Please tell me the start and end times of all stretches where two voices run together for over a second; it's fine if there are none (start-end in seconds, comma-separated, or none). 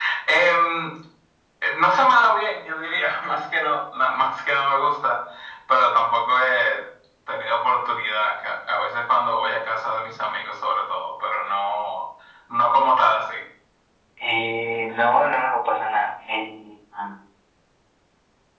none